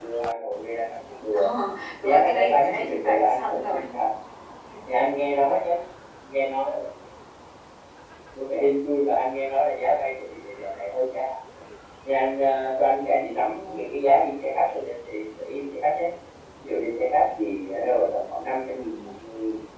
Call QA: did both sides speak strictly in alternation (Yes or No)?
No